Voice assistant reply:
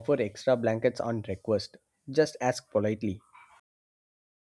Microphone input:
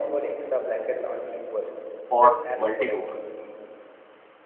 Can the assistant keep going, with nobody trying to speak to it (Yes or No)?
No